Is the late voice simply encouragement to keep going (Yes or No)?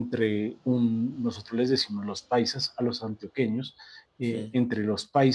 Yes